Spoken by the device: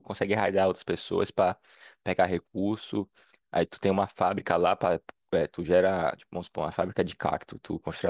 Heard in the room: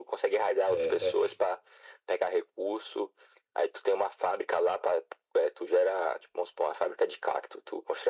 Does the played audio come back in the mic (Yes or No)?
Yes